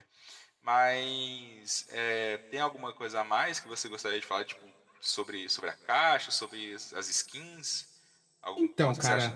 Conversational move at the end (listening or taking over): taking over